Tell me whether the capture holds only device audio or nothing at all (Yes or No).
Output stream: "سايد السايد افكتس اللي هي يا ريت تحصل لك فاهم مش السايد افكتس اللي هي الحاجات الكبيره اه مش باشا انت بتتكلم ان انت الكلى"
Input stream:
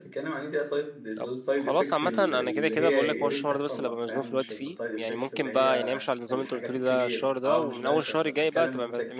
No